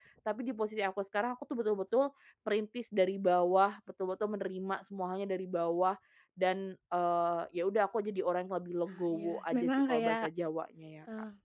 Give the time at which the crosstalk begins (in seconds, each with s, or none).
8.9 s